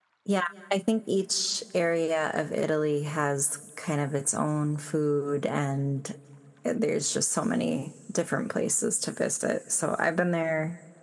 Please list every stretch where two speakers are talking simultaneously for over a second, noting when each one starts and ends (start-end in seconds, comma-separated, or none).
none